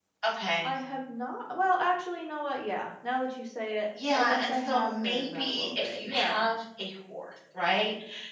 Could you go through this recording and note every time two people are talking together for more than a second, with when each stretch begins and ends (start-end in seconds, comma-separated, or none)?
4.1-6.5